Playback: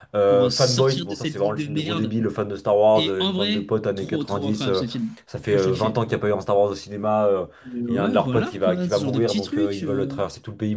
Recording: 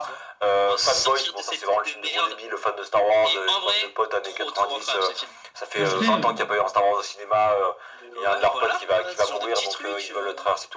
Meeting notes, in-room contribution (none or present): present